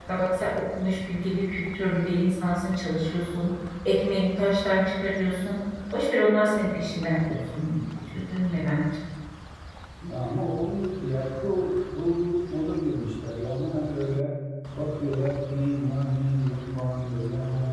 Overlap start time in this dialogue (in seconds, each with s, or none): none